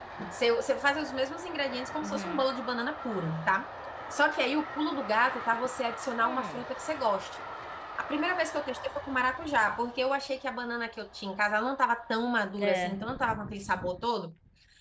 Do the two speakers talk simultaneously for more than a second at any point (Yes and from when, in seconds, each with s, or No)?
No